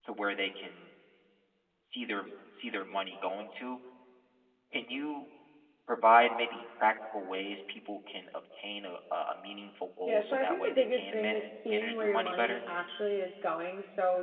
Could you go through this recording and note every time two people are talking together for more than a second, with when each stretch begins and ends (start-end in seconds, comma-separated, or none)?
10.1-12.6